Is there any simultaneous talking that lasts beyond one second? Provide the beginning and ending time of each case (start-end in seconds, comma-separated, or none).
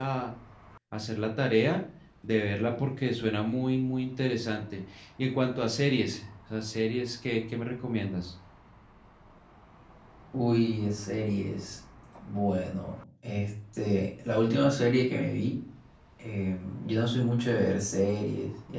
none